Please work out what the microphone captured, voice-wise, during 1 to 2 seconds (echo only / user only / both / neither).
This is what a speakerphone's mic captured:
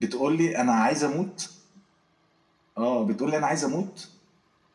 echo only